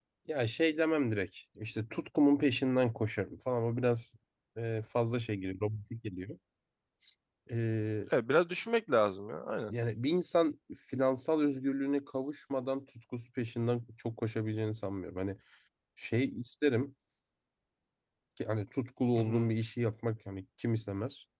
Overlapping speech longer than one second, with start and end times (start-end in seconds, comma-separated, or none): none